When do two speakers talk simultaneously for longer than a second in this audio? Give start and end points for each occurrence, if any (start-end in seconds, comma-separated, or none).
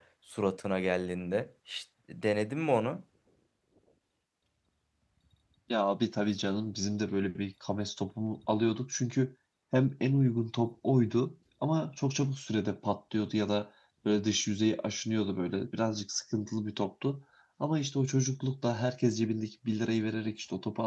none